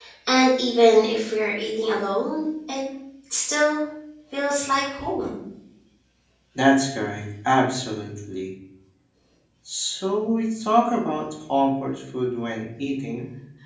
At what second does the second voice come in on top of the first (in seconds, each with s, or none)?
none